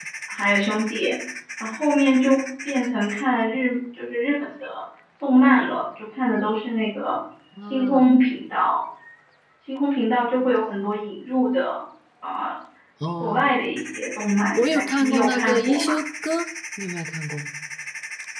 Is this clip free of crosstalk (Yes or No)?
No